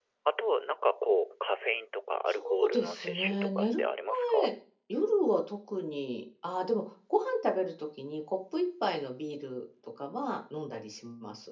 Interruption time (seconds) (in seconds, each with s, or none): 2.3 s